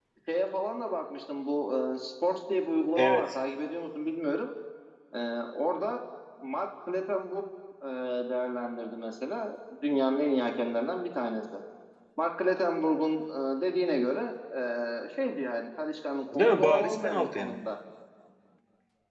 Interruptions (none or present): present